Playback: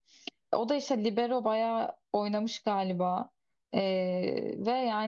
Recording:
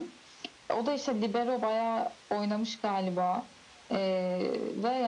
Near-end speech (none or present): none